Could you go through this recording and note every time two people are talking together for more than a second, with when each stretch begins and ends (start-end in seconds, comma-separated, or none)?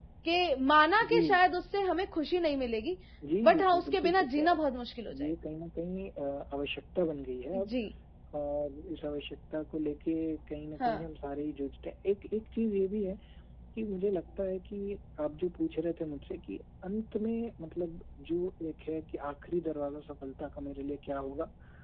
3.4-4.6